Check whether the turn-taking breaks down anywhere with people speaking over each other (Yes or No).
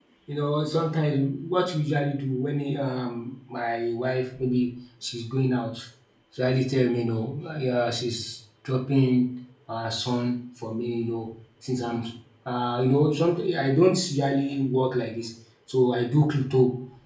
No